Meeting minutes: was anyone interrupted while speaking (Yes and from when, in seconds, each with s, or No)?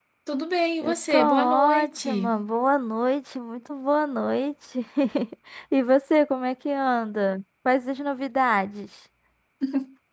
Yes, from 0.8 s